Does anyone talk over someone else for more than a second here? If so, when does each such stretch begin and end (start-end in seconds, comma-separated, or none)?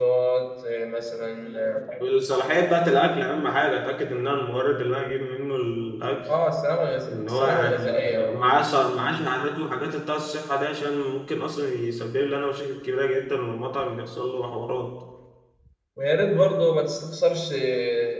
7.1-8.4